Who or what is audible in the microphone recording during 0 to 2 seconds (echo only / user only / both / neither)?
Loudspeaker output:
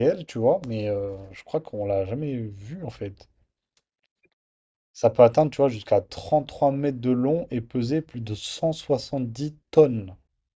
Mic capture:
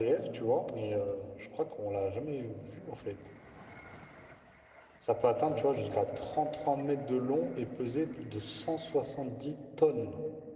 echo only